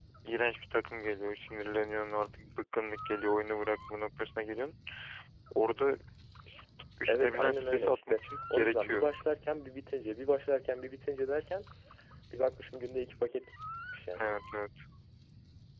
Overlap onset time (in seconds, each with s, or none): 7.0 s